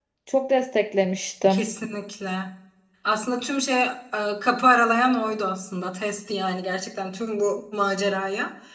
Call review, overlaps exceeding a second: none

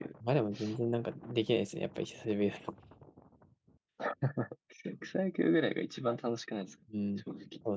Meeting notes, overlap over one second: none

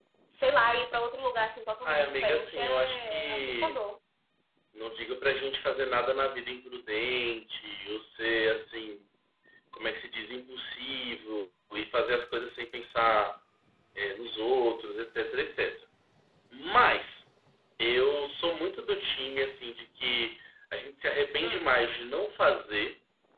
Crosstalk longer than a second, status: present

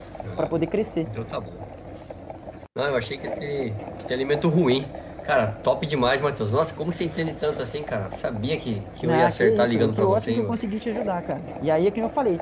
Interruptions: present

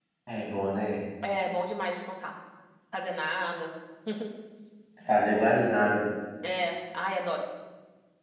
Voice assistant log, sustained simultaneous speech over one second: none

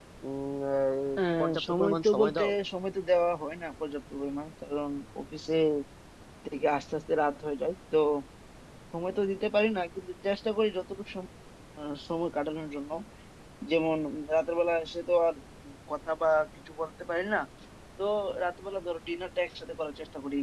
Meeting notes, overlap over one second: present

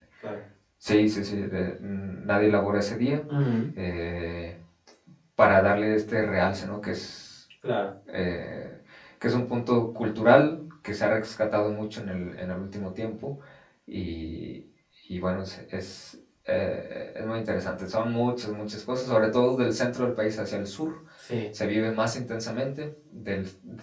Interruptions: none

